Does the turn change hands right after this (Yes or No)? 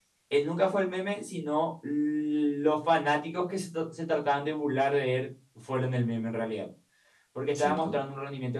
No